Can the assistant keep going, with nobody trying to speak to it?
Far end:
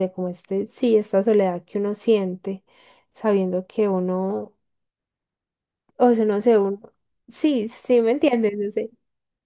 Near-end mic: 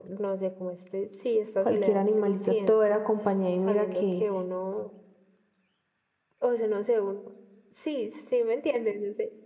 No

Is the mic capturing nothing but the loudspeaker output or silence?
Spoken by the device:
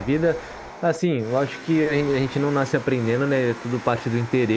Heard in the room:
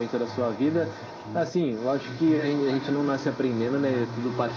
No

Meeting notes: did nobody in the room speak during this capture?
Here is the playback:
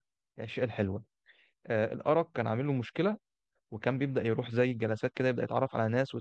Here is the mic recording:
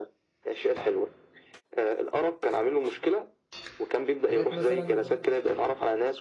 No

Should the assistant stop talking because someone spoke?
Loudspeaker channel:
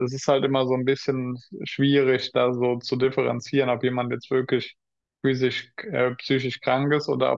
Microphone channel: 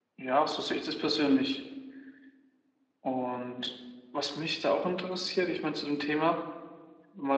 Yes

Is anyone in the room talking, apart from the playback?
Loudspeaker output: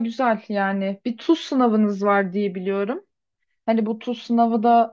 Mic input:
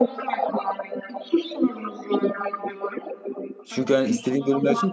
Yes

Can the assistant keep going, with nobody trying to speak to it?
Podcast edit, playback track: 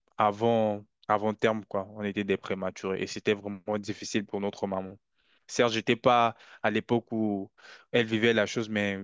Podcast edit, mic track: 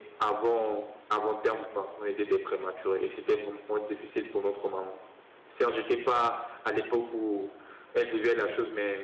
Yes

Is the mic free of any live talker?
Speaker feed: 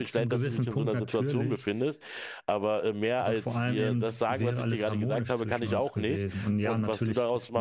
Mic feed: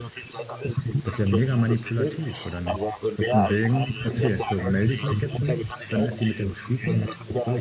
No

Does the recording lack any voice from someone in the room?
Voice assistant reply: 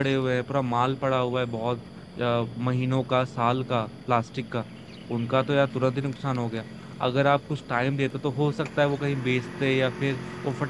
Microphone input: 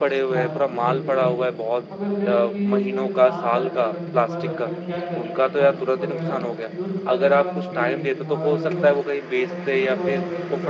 No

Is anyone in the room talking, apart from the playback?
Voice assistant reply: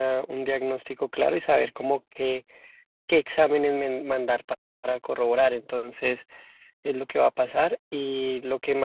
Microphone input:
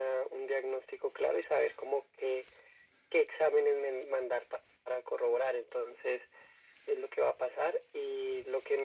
No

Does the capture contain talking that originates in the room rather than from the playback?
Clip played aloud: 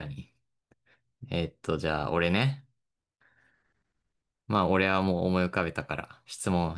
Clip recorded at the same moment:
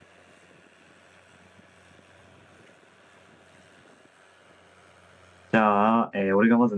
Yes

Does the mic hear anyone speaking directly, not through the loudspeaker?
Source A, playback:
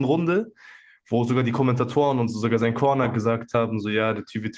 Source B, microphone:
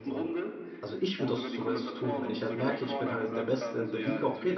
Yes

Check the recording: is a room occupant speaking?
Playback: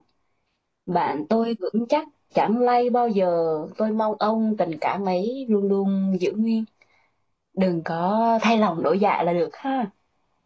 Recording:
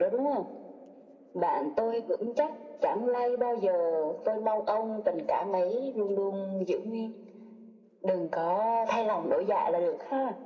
No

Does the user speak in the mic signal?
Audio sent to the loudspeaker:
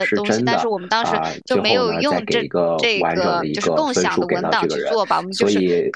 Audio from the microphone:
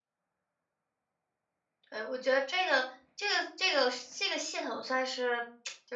Yes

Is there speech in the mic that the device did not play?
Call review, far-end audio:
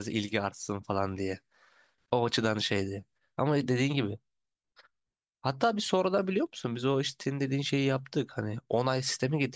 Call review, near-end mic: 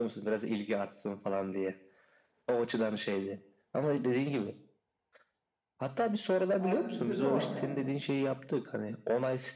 Yes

